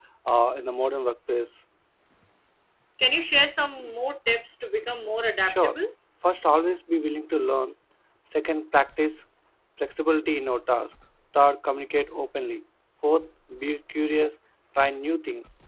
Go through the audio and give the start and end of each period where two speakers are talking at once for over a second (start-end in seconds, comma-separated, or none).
none